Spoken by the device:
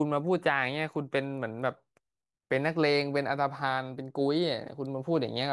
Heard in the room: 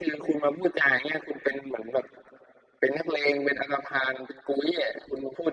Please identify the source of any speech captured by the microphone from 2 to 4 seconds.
echo only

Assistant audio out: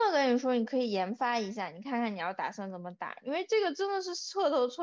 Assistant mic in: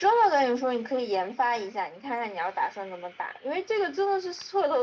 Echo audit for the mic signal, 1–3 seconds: echo only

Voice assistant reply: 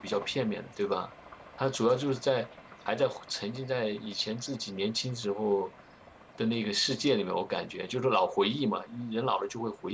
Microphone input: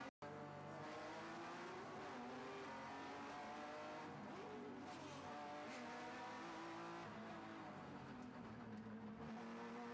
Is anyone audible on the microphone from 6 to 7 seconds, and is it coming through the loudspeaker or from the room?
neither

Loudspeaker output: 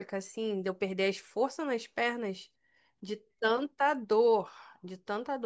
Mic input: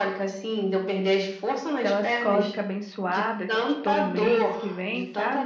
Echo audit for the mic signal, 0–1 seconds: echo only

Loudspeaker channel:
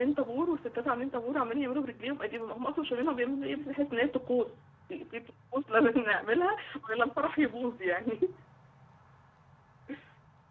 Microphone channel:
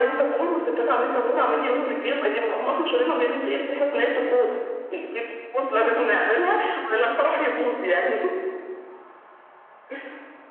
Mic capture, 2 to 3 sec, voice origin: echo only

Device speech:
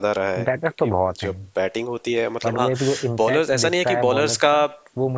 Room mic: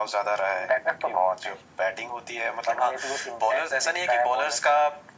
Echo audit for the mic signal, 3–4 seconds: echo only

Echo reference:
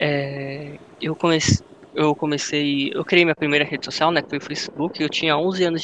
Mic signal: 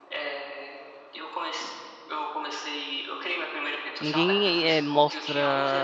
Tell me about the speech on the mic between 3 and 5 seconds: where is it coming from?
both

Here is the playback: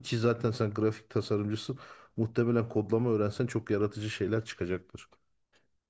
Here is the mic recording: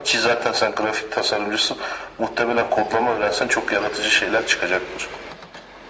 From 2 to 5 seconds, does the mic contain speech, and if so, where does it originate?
echo only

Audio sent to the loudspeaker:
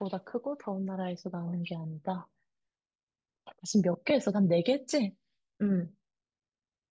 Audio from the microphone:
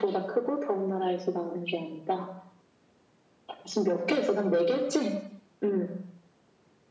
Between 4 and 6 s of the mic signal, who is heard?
echo only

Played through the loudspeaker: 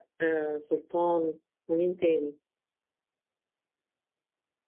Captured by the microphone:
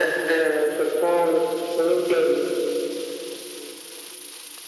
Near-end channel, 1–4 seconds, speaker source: echo only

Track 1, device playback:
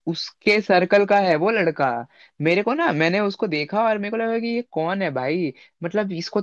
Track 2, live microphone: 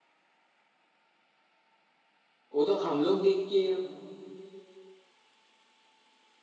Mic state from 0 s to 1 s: neither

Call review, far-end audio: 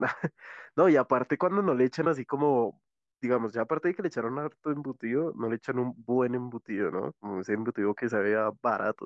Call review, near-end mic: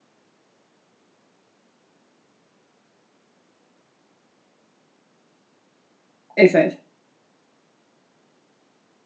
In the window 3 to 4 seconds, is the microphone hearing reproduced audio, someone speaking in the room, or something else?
neither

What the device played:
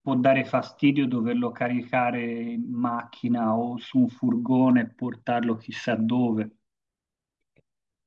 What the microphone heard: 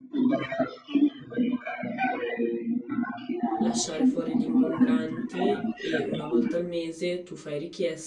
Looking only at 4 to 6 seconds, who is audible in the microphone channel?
both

